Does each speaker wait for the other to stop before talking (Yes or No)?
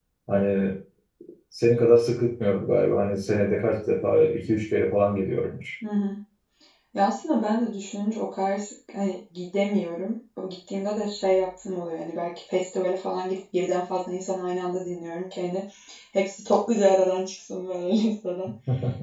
Yes